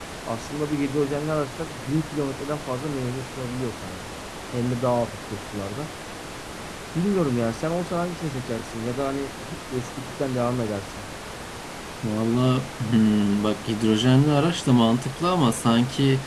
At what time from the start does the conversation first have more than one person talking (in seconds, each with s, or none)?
none